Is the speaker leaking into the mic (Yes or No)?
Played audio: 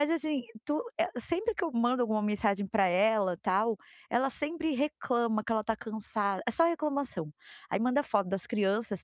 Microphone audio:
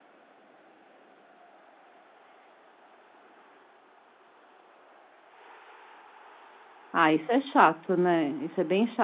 No